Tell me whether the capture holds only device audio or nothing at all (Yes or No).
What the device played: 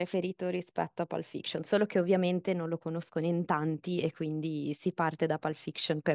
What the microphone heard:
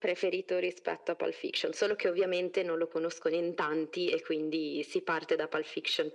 Yes